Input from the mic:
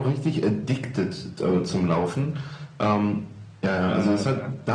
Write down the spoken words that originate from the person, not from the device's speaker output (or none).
Äh,